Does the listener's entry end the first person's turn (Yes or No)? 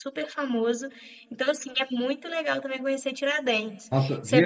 Yes